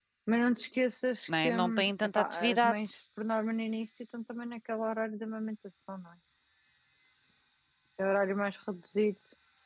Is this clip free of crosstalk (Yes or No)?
No